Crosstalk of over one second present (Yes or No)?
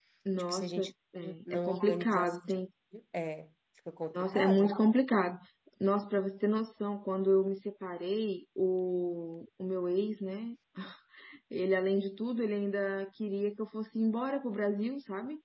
Yes